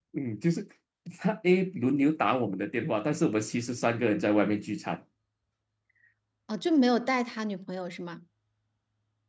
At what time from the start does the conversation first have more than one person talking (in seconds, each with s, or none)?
none